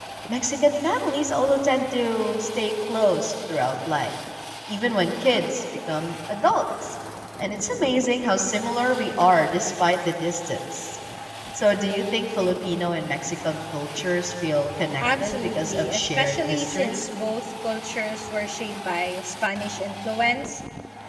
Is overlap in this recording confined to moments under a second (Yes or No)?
No